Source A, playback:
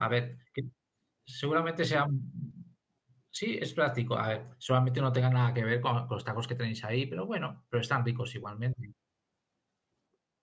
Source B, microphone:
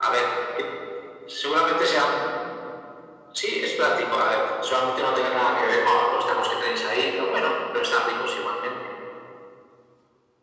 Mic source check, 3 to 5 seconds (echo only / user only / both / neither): echo only